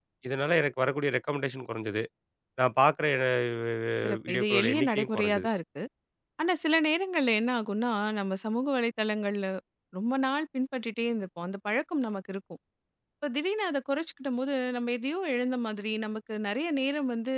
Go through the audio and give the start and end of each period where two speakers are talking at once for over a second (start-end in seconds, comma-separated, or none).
4.3-5.5